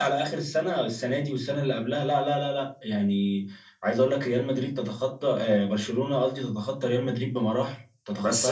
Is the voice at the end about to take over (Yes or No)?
Yes